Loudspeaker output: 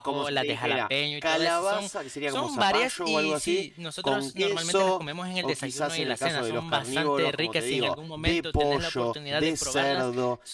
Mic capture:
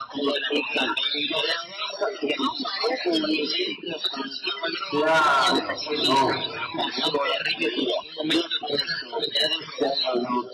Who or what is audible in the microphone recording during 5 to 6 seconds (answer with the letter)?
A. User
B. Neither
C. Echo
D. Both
D